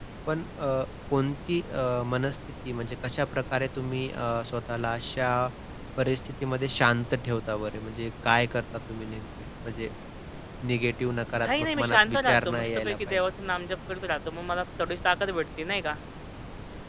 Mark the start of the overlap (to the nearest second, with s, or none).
11 s